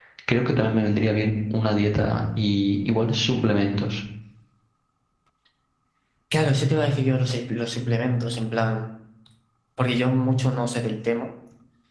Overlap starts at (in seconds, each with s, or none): none